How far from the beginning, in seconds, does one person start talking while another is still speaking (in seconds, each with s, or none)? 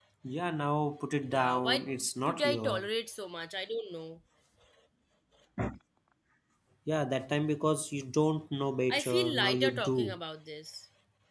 1.3 s